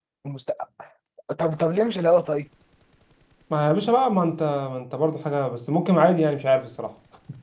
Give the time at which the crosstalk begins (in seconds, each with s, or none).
none